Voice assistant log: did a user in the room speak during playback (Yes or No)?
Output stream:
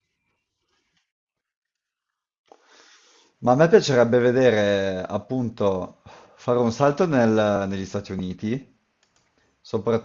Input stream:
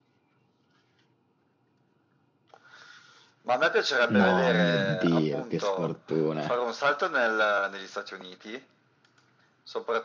Yes